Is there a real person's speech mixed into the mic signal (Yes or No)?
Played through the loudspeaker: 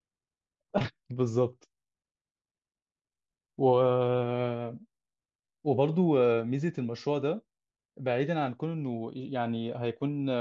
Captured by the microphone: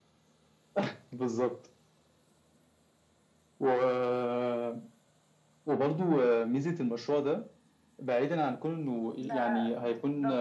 Yes